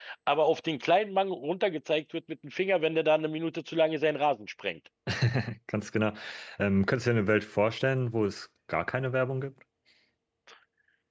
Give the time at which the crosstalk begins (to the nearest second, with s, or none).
none